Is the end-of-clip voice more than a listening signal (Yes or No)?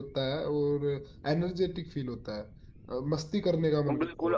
Yes